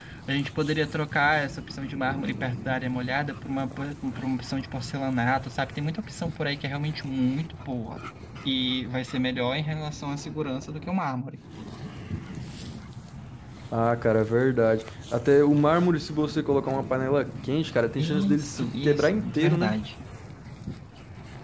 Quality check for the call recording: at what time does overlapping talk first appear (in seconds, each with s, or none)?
18.0 s